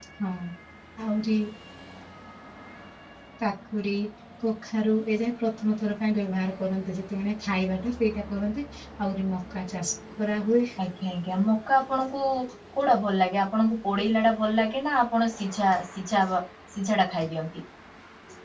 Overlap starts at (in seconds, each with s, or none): none